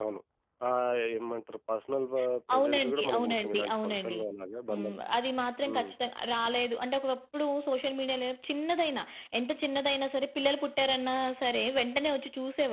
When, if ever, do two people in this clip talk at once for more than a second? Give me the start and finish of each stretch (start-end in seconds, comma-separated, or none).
2.5-4.2